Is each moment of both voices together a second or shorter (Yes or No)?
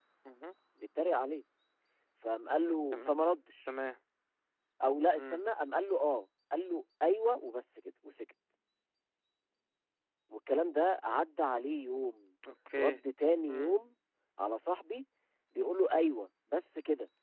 Yes